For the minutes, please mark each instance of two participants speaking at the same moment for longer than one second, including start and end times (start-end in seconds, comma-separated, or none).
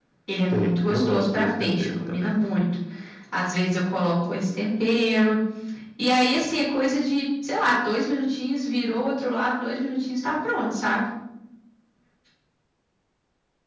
0.5-2.4